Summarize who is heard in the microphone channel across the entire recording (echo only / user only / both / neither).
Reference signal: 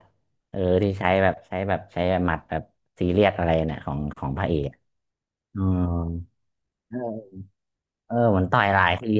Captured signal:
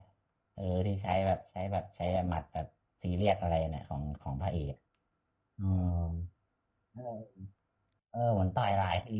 echo only